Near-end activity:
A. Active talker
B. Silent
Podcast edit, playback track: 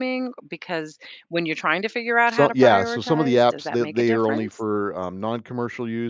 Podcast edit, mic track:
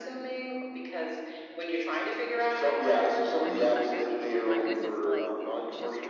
A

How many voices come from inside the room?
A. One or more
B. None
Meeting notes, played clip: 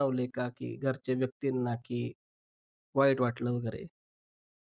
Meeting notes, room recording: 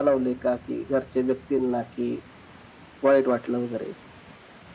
B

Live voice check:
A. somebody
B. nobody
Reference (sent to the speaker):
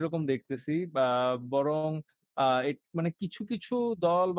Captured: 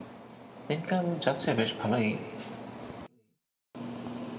A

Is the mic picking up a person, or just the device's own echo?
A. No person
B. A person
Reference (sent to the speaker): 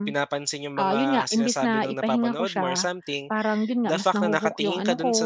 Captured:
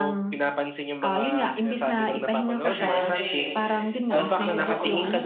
B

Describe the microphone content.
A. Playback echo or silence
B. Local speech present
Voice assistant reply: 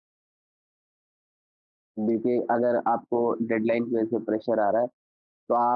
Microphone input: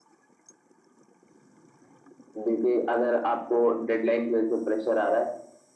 A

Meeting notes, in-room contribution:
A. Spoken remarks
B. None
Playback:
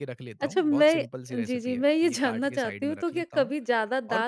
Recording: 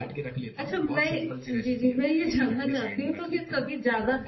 B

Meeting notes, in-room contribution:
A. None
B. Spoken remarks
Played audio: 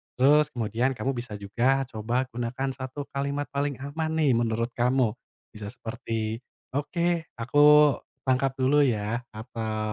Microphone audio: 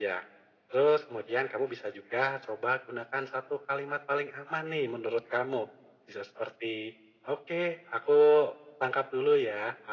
A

